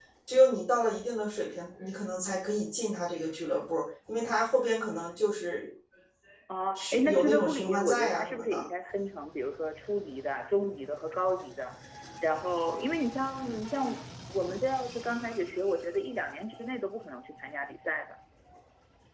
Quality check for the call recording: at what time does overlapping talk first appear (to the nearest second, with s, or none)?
7 s